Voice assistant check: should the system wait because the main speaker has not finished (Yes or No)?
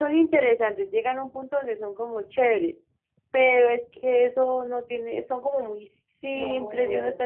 Yes